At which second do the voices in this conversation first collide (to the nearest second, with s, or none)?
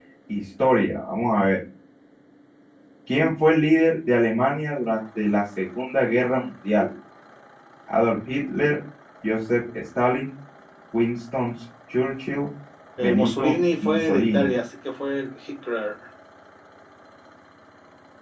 13 s